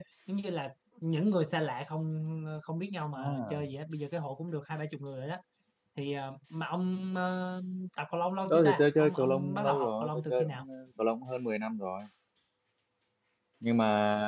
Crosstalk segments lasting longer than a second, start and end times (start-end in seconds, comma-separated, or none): 8.5-10.6